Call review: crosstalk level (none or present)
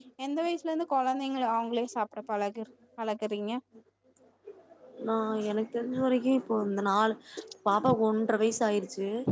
none